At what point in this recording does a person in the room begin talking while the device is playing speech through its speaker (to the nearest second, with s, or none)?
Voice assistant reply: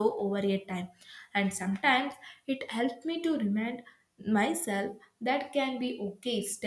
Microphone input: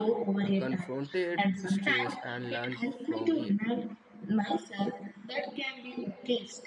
0 s